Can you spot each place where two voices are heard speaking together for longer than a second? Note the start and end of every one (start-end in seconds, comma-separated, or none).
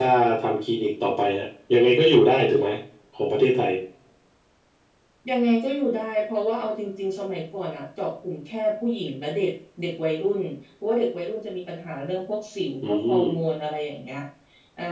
none